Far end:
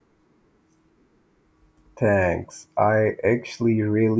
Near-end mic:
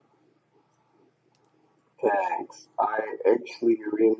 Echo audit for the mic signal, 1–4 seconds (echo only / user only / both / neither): echo only